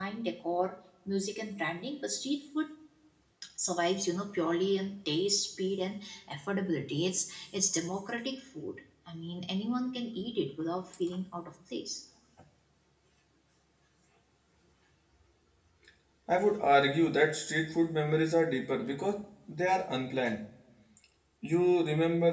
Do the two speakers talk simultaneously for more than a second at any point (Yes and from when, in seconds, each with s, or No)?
No